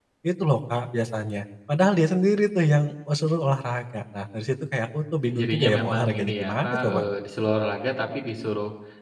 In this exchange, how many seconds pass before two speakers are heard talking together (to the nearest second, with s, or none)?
5 s